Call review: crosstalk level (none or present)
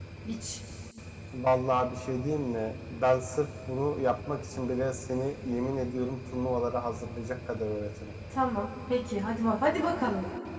none